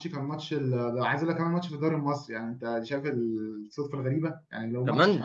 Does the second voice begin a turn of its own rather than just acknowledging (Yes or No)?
No